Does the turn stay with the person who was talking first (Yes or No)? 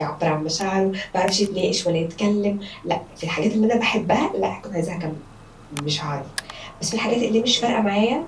Yes